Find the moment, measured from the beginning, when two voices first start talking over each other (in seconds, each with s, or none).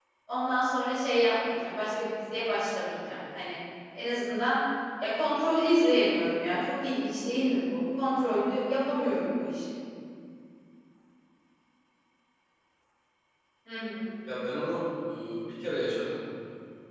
none